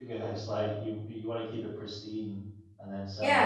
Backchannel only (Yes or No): No